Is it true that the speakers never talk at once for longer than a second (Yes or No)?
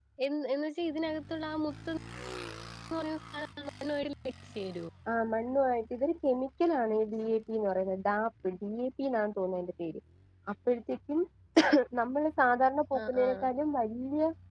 Yes